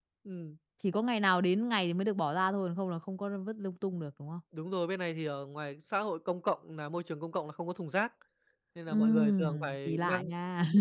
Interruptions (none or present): present